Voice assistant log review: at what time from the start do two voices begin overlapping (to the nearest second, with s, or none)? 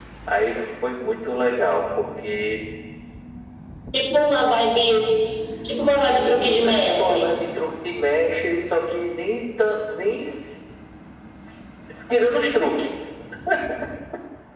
6 s